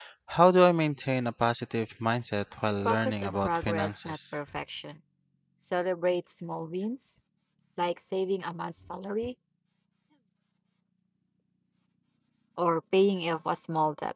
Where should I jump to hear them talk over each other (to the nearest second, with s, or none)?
3 s